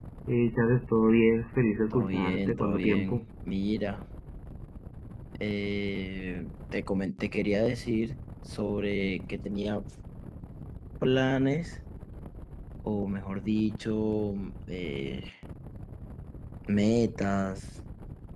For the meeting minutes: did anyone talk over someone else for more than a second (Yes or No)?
Yes